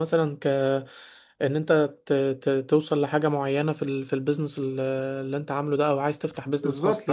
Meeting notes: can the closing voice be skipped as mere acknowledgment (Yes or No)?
No